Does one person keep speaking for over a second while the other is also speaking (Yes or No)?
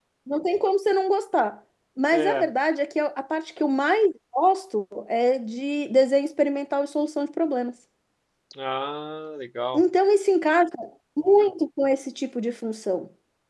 No